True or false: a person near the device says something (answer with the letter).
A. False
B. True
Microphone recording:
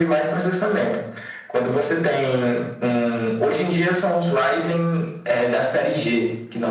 A